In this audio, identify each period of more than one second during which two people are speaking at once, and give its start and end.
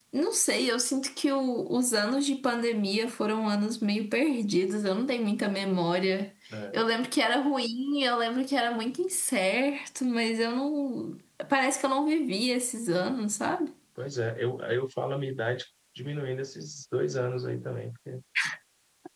none

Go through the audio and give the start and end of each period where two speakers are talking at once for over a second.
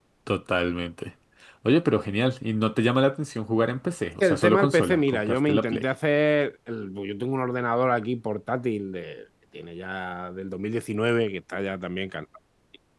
4.3-5.8

